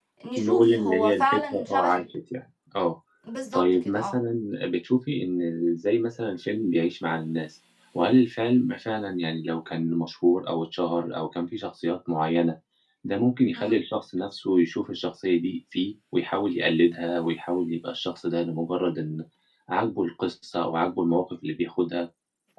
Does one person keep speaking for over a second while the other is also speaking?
Yes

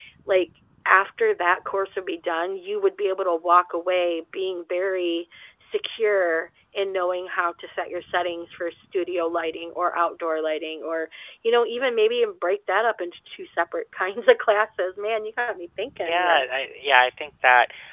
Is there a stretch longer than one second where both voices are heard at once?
No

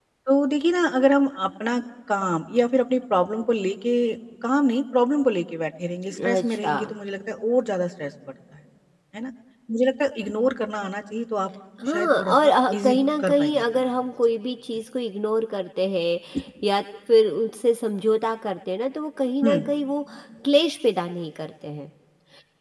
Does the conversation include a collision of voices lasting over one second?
Yes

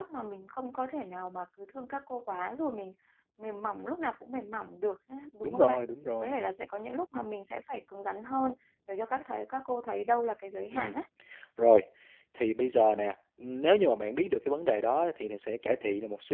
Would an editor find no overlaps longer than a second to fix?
Yes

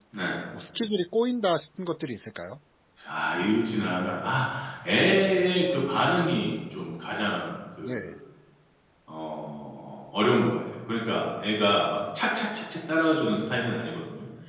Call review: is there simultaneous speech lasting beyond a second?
No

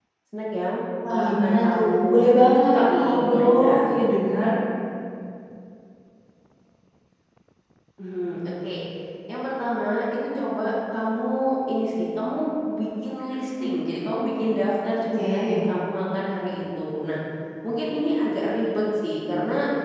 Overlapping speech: Yes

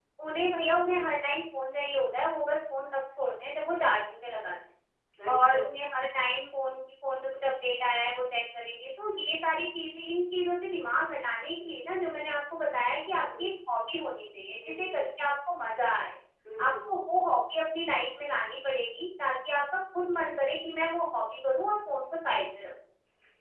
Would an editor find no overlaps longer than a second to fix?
Yes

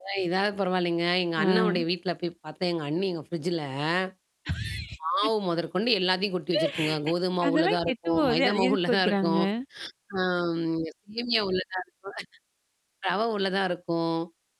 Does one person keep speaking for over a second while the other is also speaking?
Yes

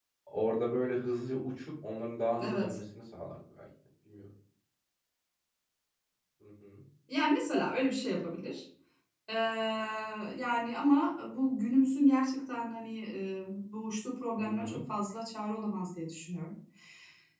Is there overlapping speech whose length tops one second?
No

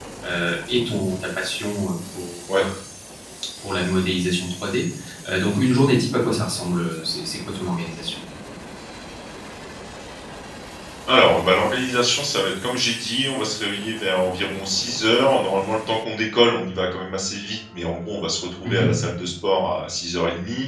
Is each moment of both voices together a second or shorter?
Yes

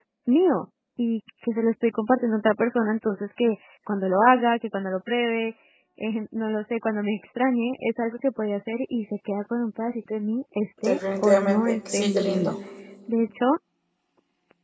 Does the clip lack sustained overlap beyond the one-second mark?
No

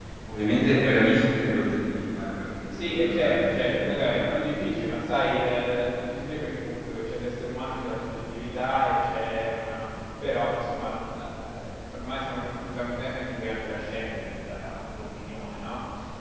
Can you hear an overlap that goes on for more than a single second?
Yes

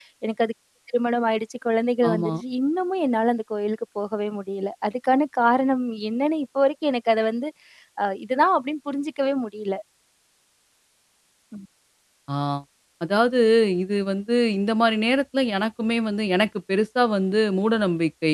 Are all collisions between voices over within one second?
Yes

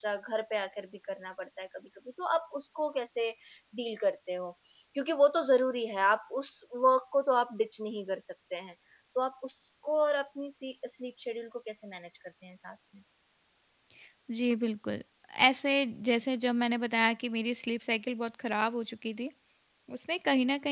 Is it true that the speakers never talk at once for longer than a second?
Yes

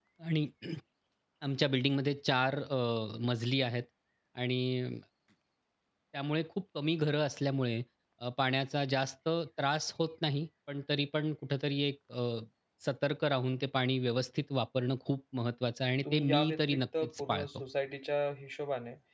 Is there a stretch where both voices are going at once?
Yes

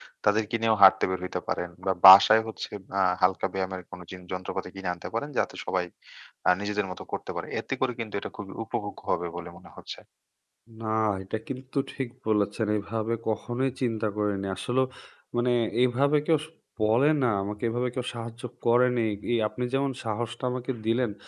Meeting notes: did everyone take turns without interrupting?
Yes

